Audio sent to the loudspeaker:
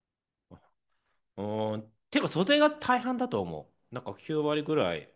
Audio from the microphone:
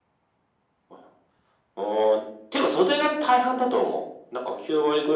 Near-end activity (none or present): none